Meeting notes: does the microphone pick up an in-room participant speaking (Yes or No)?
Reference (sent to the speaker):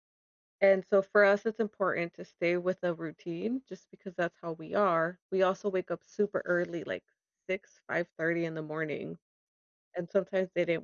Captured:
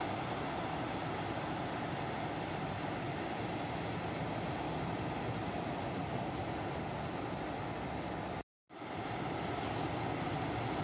No